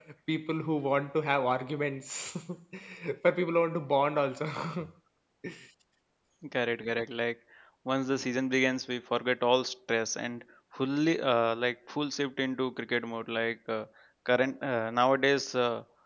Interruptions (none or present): none